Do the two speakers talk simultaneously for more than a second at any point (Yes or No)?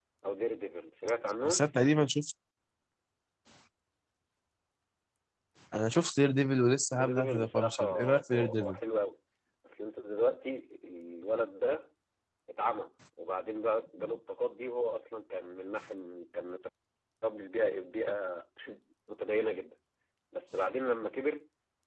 Yes